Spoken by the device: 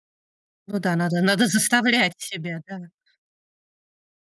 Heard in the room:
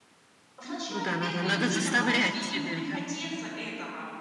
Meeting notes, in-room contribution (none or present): present